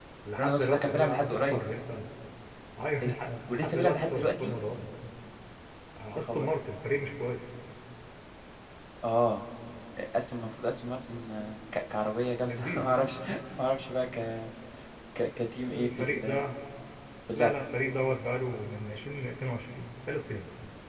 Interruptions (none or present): present